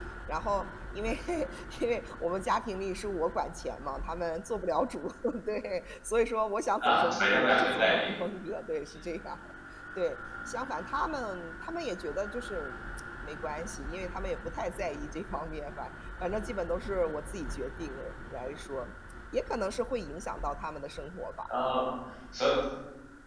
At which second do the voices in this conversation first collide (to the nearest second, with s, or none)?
7 s